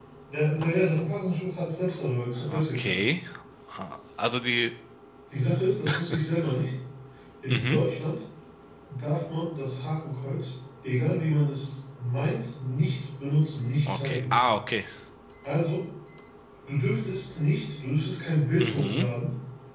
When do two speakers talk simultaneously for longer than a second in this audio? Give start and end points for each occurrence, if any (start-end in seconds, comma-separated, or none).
none